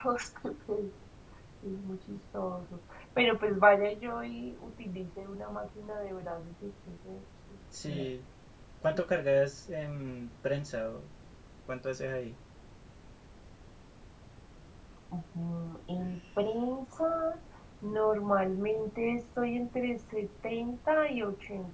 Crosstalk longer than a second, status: none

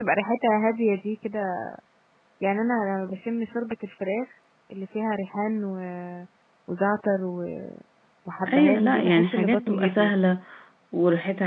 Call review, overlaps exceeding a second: present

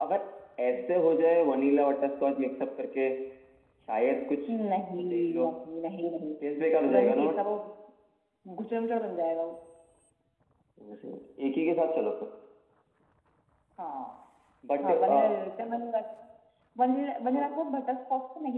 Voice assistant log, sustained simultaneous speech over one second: none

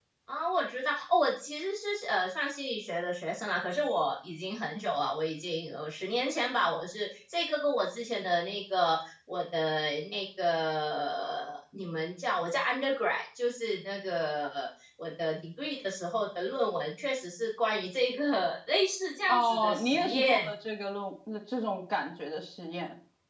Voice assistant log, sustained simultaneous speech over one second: present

